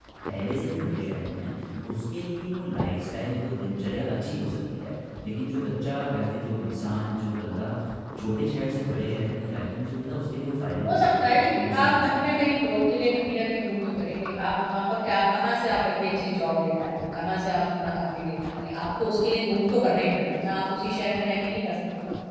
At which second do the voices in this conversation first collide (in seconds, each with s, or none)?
10.8 s